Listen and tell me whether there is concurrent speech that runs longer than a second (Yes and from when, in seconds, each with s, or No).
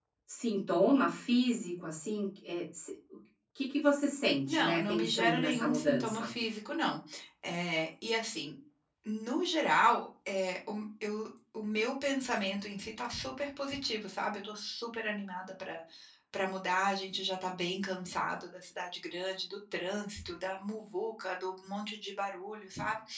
Yes, from 4.4 s